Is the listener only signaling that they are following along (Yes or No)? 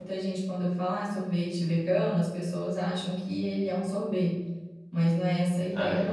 No